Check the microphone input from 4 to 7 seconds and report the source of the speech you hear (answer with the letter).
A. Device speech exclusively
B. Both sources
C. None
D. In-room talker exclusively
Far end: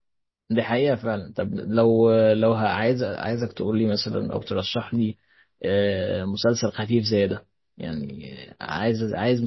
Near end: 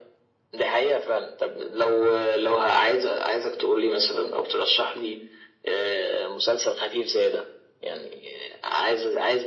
A